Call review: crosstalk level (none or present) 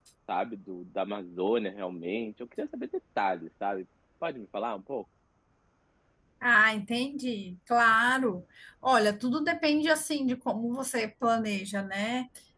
none